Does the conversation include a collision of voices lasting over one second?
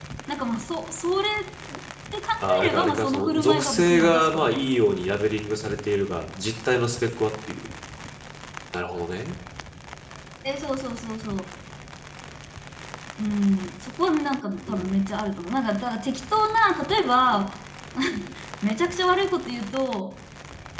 Yes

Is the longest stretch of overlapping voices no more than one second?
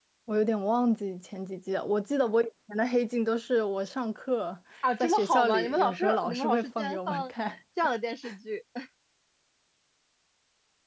No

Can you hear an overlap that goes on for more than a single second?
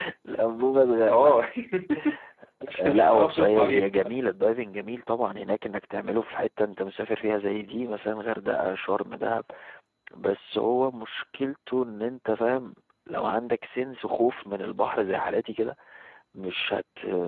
Yes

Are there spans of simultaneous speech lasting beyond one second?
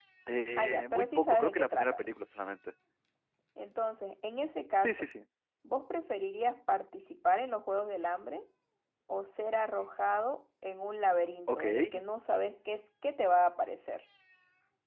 Yes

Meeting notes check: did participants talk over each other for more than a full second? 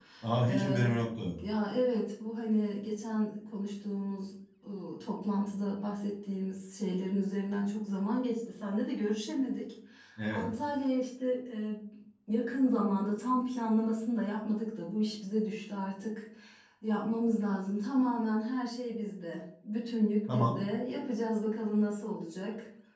No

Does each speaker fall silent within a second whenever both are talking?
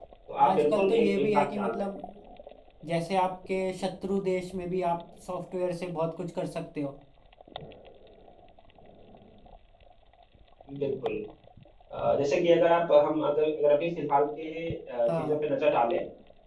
No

